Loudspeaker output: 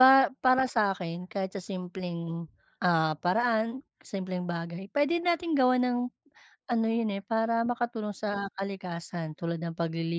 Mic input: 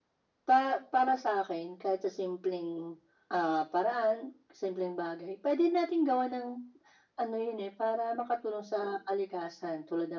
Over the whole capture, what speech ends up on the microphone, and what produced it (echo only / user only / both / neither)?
echo only